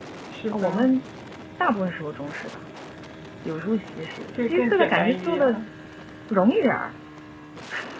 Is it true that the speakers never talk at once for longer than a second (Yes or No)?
No